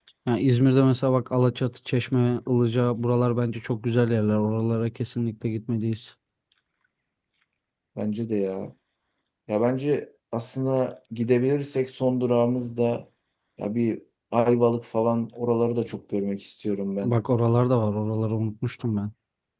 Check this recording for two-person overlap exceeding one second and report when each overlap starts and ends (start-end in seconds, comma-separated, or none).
none